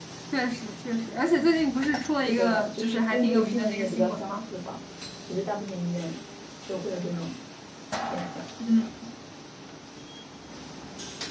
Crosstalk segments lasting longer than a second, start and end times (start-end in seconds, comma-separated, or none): 2.1-4.4